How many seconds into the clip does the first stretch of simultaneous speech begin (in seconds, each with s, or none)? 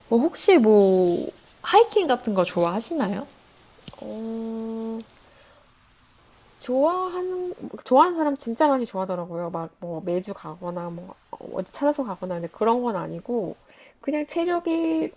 none